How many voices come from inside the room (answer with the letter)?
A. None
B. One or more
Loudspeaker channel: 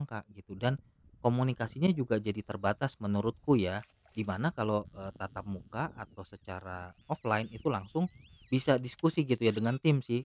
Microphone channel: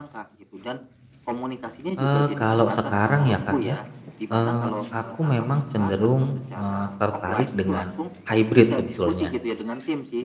B